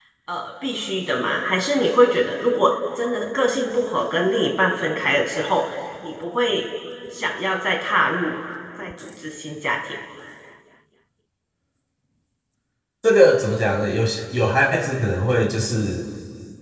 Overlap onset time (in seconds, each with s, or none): none